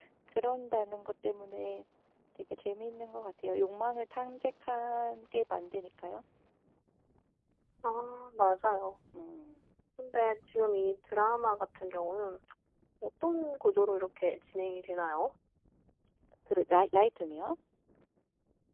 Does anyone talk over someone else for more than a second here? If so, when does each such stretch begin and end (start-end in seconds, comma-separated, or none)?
none